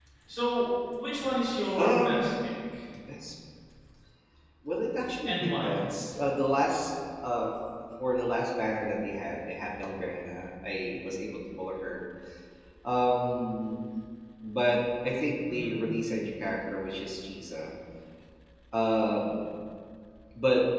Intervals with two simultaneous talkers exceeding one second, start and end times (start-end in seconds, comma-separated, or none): none